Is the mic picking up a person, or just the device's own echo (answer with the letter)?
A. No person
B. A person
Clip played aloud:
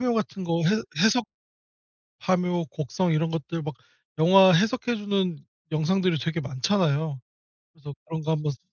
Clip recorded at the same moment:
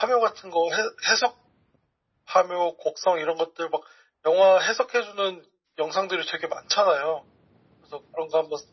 A